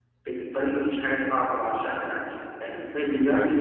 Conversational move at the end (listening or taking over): listening